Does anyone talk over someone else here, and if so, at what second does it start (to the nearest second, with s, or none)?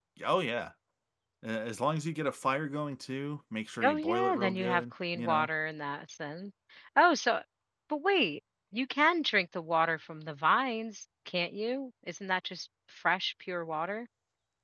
4 s